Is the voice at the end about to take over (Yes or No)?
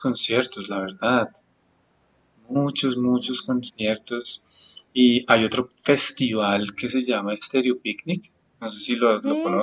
Yes